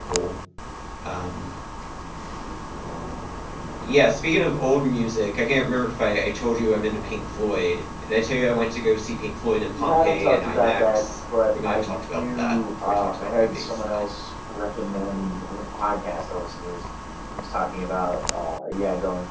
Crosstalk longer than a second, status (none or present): present